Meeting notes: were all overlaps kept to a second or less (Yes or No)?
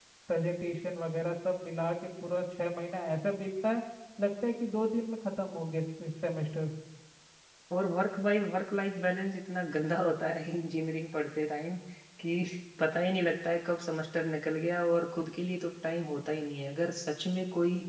Yes